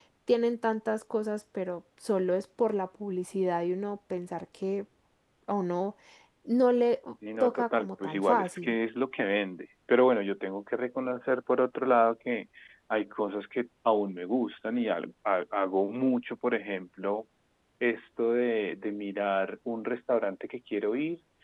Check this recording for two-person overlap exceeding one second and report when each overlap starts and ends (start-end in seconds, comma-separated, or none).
7.4-8.8